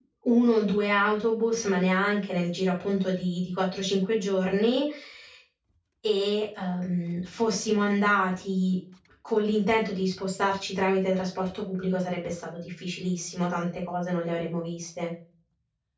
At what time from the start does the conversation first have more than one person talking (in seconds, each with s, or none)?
none